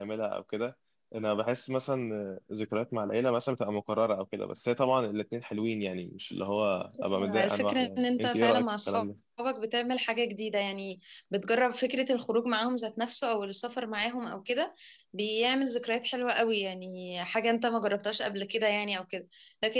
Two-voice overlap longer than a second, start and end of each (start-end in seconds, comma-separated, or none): 7.0-9.0